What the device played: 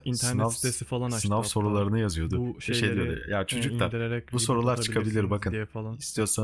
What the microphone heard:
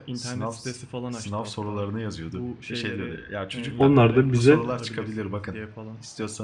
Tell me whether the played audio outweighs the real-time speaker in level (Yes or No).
No